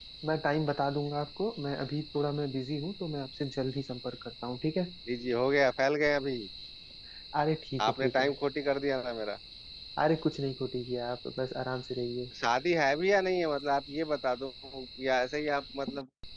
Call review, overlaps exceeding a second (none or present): none